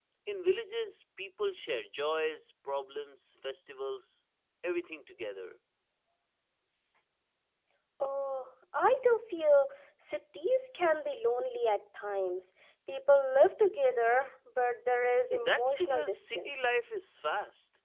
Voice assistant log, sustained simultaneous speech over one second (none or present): present